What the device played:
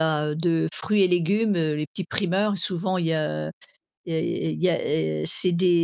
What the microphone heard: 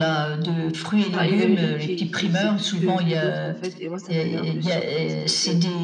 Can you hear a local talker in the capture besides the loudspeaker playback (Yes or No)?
Yes